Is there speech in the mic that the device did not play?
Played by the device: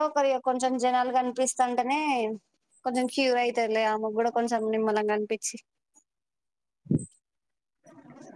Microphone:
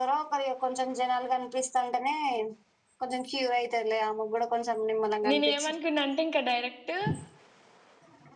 Yes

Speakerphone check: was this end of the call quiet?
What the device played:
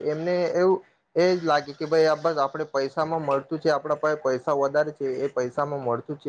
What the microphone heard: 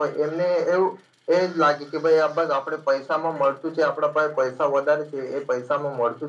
Yes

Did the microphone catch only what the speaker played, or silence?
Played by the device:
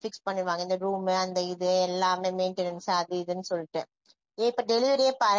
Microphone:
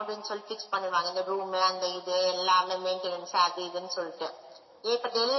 Yes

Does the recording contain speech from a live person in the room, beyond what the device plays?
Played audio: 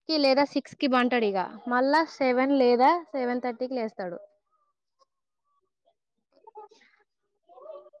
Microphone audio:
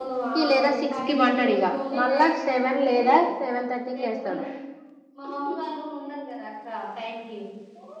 Yes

